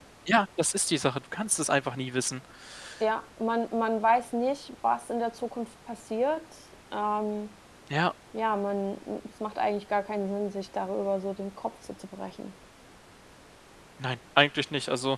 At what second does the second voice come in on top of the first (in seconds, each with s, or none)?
none